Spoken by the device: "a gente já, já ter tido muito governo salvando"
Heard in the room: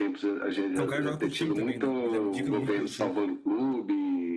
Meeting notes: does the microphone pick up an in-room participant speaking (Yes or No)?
Yes